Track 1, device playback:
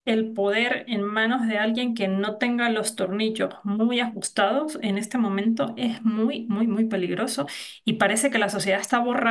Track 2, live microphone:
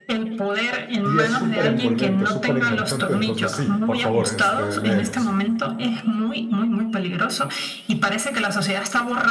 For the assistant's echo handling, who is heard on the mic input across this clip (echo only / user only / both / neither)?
both